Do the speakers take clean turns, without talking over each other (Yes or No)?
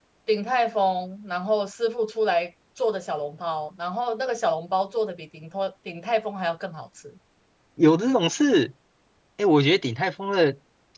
Yes